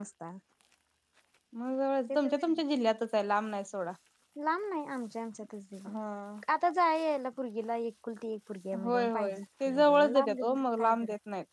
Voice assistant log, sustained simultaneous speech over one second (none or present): present